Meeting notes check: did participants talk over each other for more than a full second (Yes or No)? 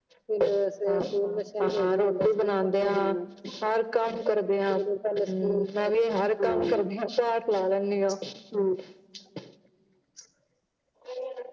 Yes